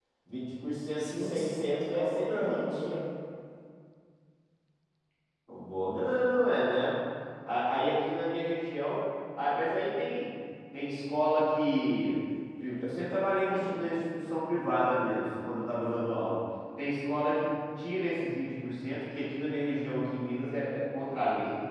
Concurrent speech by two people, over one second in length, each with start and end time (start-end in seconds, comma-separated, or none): 1.0-2.7